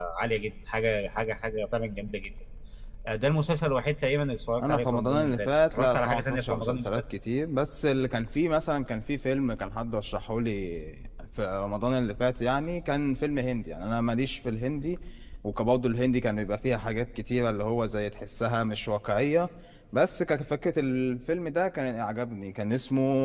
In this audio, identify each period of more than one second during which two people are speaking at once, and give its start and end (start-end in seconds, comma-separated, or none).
4.6-6.9